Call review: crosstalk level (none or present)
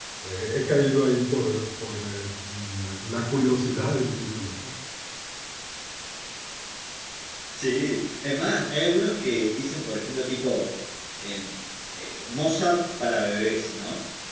none